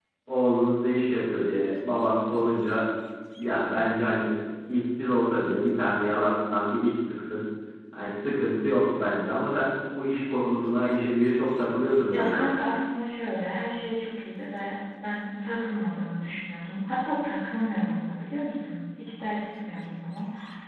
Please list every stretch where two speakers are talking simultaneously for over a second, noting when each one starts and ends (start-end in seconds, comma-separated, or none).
none